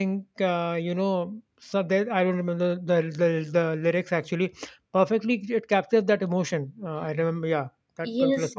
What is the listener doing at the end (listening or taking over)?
taking over